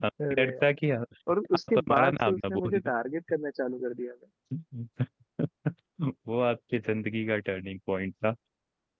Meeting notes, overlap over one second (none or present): present